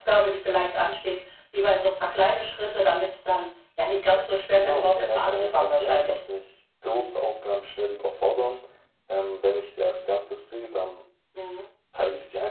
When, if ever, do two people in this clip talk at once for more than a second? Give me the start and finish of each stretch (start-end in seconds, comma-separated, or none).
4.5-6.2